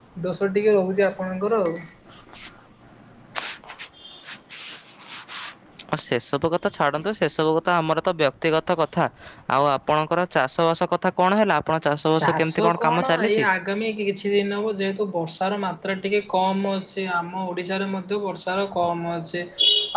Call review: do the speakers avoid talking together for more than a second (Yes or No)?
No